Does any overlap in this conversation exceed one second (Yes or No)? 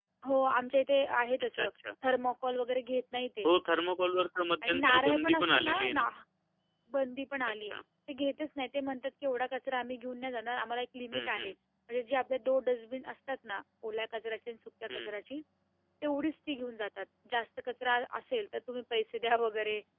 Yes